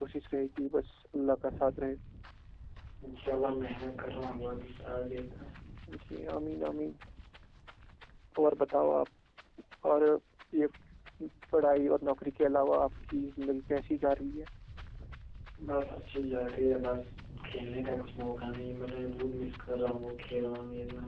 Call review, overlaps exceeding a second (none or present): none